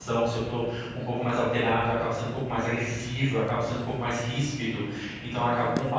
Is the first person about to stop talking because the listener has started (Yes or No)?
No